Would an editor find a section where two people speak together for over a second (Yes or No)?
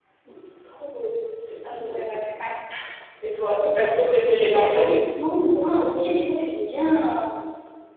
No